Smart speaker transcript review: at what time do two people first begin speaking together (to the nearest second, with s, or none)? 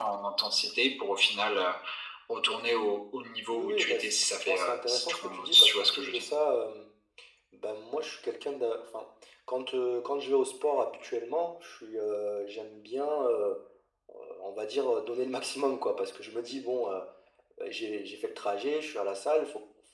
3 s